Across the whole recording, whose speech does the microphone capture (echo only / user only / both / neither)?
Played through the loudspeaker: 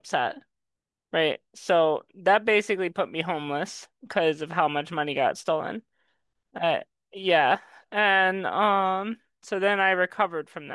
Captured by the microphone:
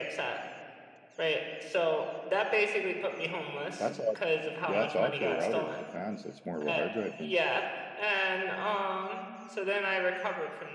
both